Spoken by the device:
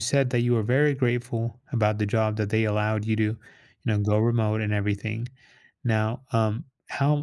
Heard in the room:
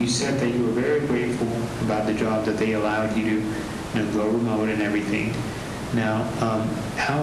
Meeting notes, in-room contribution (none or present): none